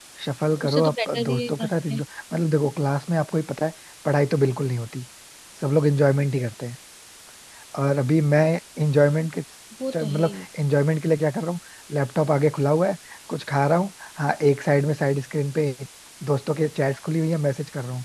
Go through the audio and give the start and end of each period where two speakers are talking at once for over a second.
0.6-2.0

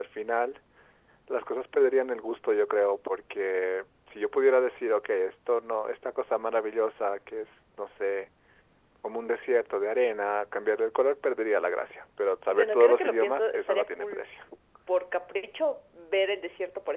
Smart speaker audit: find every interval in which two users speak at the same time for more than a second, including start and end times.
12.5-14.2

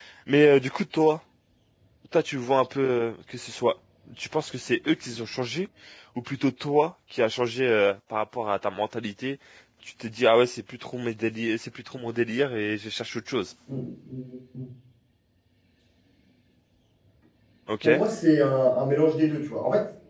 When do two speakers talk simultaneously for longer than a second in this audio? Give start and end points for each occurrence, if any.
none

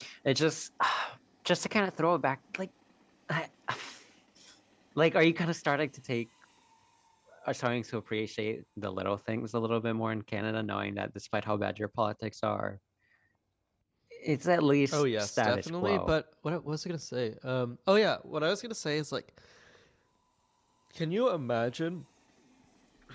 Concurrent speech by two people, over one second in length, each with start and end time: 14.9-16.1

